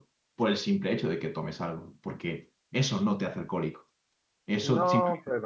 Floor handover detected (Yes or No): No